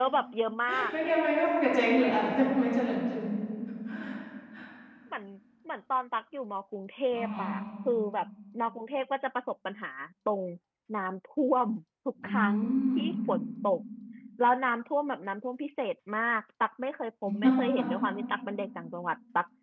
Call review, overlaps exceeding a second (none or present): none